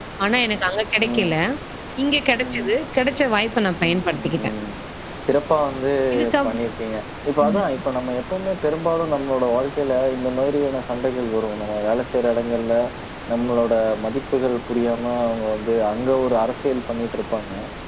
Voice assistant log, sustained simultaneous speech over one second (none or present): none